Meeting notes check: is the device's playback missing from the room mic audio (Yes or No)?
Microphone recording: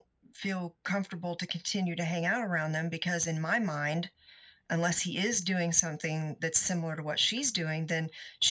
No